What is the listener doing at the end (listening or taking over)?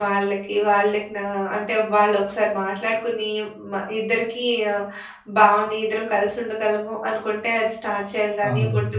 listening